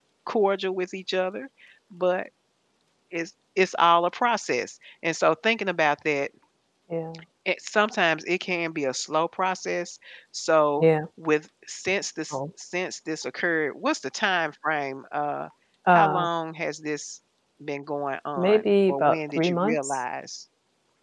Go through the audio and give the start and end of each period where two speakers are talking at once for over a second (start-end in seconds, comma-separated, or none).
18.4-20.0